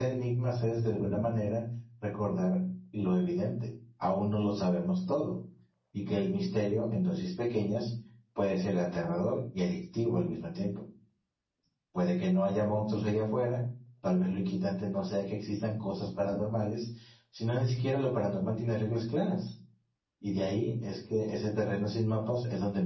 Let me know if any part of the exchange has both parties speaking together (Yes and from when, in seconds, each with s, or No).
No